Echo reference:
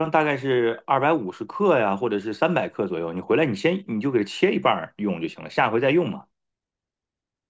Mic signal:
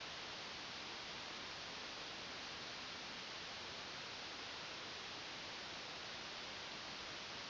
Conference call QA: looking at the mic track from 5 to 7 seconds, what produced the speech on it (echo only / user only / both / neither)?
neither